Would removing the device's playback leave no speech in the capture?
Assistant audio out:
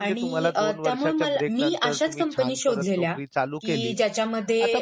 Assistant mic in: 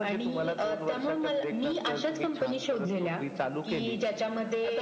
Yes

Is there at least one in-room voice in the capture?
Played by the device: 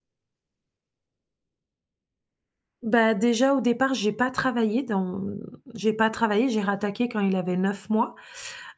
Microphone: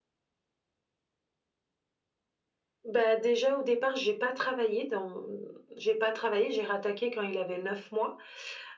No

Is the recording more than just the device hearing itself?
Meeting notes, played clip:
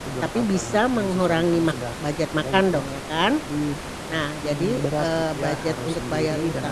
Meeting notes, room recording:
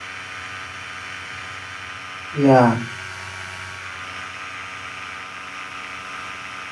Yes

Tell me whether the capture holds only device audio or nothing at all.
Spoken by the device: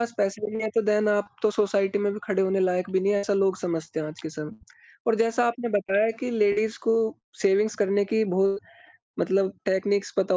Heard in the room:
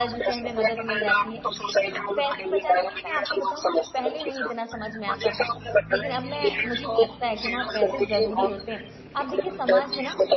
No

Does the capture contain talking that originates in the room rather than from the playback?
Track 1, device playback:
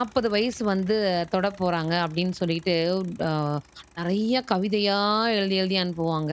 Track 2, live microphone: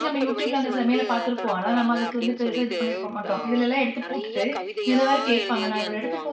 Yes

